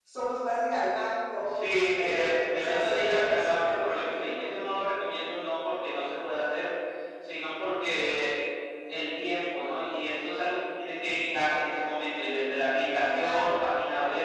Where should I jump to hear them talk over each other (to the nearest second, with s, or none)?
2 s